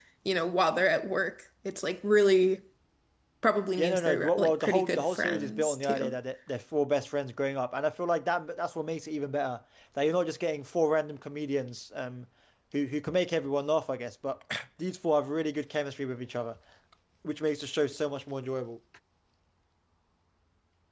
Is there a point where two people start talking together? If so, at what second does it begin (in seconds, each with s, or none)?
3.8 s